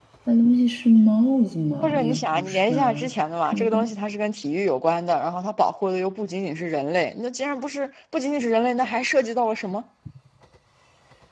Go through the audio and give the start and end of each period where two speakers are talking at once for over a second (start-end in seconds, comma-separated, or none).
1.8-3.1